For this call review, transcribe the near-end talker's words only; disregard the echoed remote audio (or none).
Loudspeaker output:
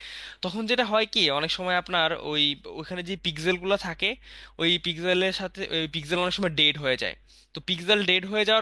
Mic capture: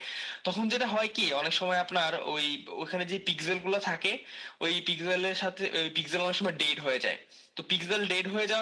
none